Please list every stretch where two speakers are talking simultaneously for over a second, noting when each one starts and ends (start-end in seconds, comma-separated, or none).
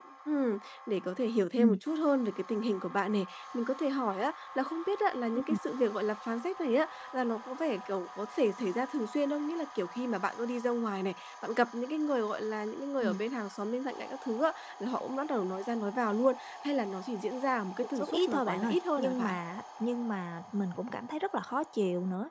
18.0-19.4